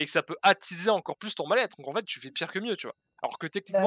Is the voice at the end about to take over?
No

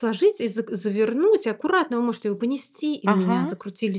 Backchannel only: Yes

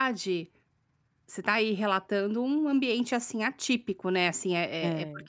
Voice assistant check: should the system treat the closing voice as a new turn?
No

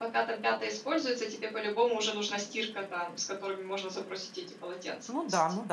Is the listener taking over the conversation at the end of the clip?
Yes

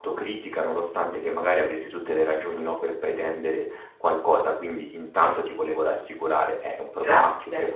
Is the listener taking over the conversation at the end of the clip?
No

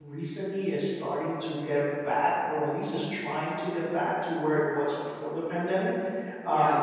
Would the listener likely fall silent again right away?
Yes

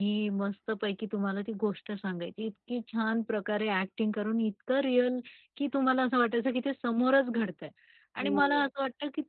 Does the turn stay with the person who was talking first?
Yes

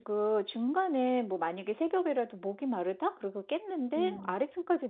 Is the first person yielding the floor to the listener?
No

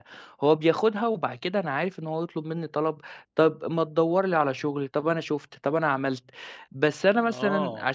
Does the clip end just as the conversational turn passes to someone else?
Yes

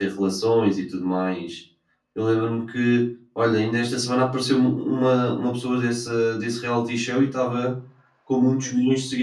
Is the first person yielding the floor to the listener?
No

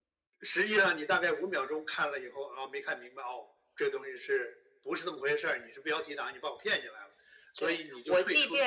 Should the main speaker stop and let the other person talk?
Yes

